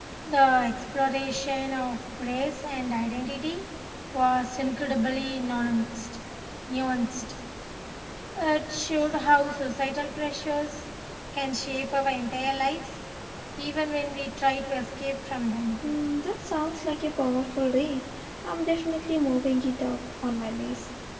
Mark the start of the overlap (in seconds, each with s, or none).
none